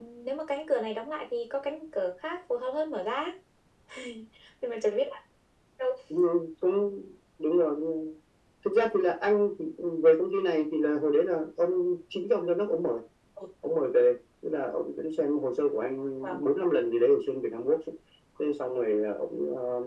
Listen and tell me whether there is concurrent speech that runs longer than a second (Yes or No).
No